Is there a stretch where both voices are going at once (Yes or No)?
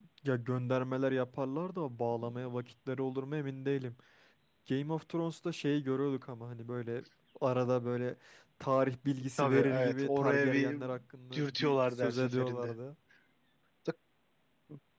Yes